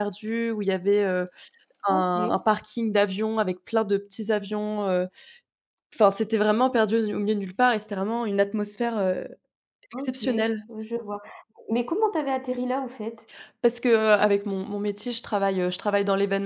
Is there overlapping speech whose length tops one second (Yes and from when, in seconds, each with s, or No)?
No